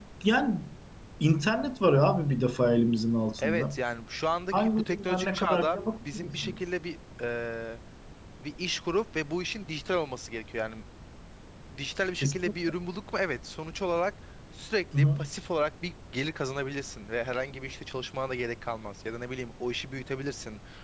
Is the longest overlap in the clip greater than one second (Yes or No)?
Yes